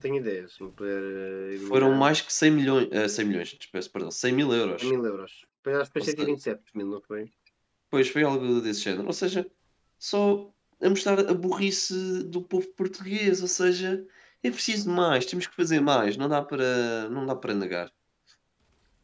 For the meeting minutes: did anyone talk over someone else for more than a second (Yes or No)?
No